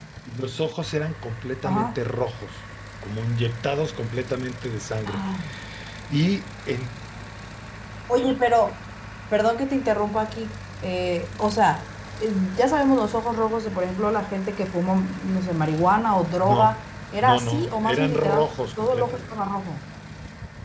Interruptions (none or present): present